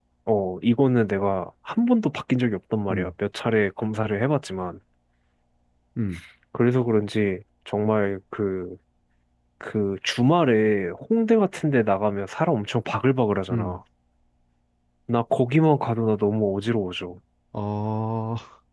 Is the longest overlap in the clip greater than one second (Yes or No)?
No